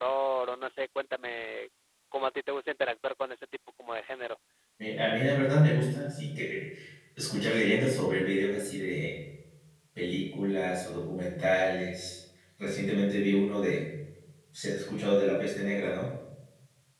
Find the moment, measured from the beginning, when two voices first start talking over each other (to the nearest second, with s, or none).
none